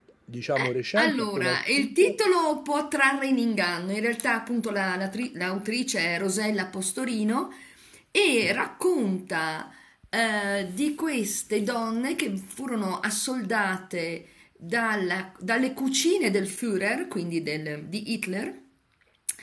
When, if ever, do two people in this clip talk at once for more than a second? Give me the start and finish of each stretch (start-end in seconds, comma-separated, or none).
0.6-2.1